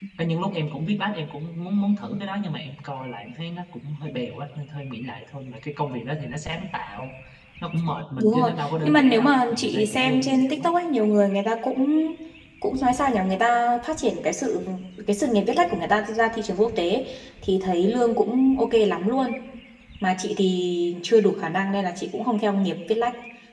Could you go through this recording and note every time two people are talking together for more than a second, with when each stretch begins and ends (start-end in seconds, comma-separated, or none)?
8.2-10.7